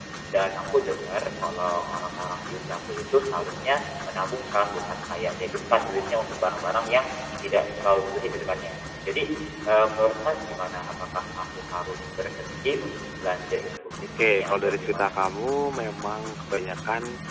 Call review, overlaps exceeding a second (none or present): present